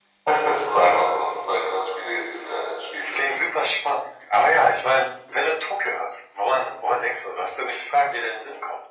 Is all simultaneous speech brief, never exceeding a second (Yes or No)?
Yes